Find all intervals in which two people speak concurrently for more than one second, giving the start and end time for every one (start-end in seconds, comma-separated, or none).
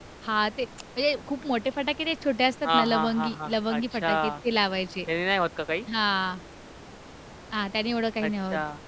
2.7-4.1